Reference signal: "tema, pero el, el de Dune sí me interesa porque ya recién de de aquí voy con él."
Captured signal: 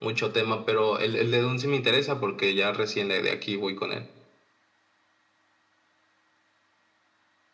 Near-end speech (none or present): none